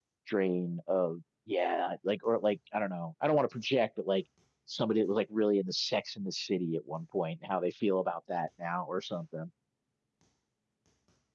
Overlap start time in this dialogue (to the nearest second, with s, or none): none